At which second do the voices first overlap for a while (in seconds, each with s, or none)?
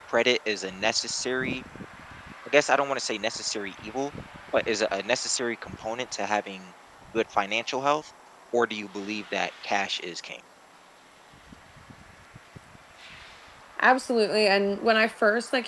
none